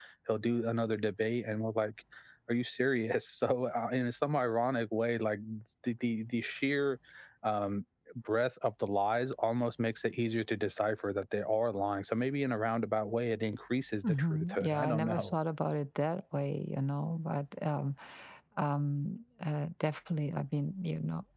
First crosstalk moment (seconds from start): 14.0 s

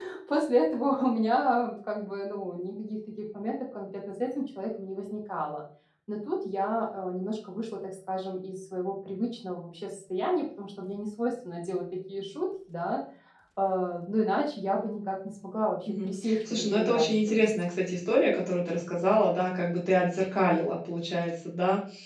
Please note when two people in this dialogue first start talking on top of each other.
15.9 s

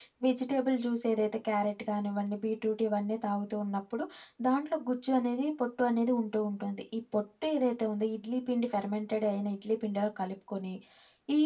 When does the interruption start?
none

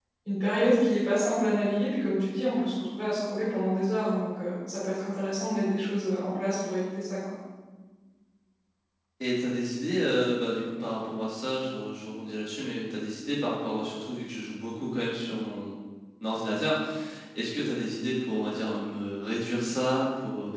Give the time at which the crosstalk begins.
none

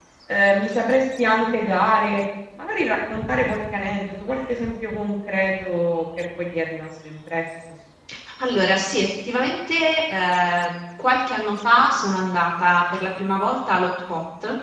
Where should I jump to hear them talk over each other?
none

